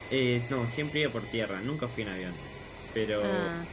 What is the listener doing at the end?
listening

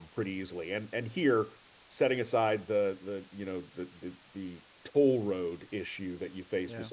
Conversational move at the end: listening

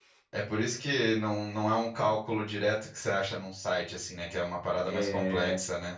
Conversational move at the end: taking over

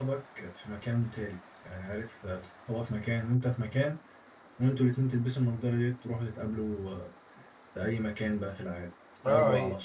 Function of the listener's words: taking over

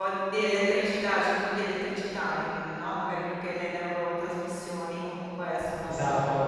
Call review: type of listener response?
listening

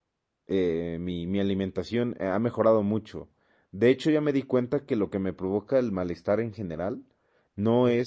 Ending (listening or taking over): listening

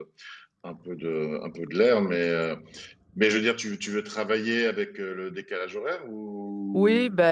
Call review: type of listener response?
taking over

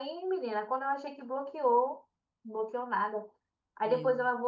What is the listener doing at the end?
listening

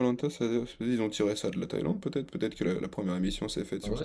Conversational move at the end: taking over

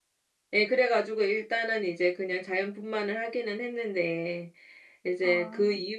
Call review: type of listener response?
listening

